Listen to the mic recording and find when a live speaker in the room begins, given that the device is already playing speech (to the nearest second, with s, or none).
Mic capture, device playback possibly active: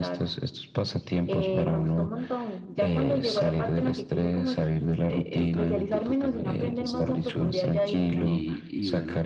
5 s